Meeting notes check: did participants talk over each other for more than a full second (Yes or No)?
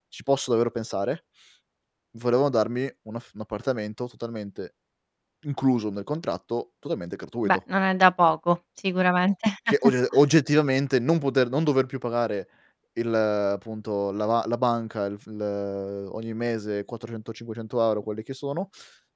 No